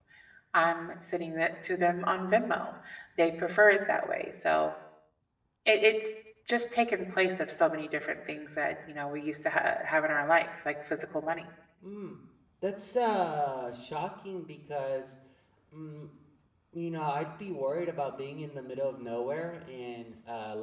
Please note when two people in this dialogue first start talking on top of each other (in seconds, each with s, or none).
none